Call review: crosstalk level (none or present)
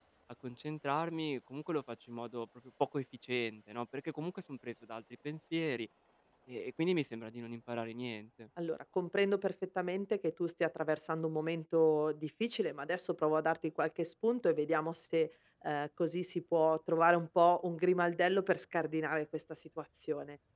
none